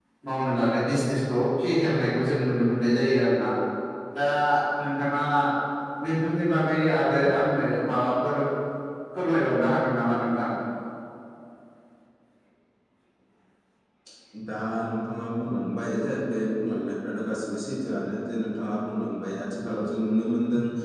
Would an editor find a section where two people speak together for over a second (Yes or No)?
No